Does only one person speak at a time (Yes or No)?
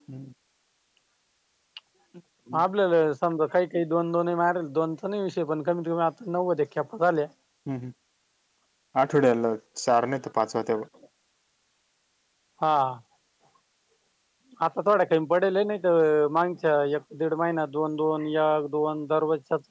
Yes